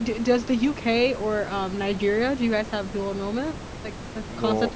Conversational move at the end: taking over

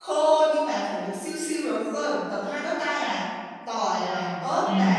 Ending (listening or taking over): listening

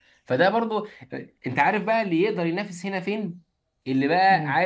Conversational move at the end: listening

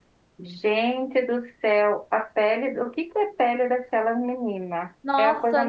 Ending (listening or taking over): taking over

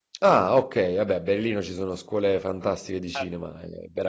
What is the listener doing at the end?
listening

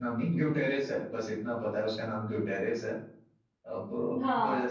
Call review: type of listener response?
taking over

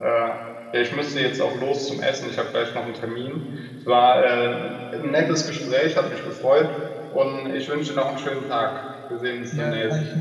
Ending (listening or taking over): taking over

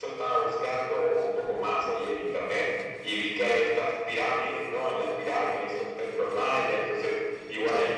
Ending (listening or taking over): listening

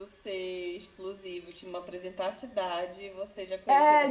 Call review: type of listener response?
taking over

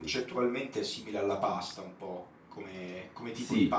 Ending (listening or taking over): taking over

